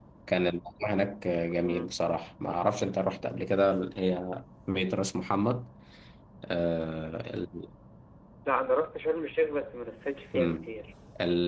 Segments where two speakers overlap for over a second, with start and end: none

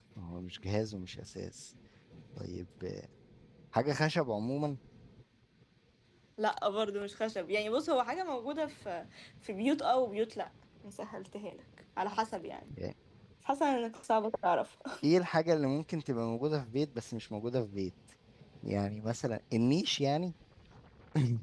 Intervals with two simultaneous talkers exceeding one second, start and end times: none

